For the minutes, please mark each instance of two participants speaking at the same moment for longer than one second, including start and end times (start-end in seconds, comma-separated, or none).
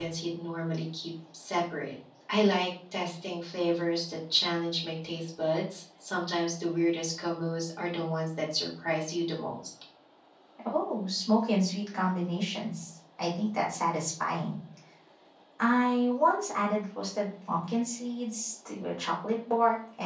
none